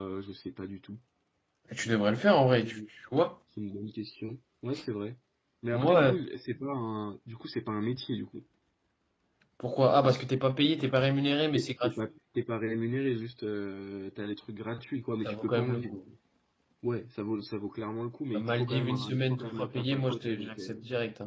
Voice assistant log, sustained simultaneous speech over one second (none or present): present